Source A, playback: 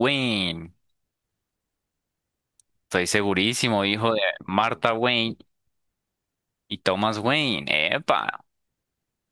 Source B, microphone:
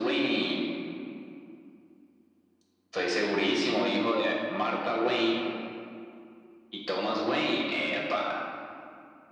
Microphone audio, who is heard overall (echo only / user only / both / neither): echo only